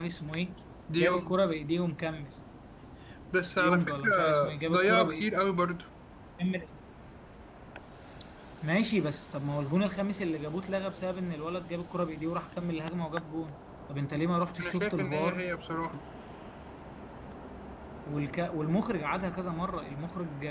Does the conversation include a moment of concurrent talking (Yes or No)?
Yes